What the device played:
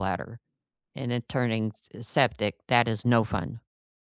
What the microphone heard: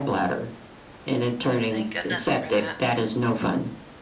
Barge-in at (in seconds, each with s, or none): 1.6 s